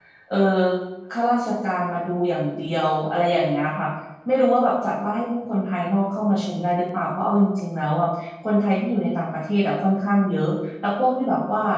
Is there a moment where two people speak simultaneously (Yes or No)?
No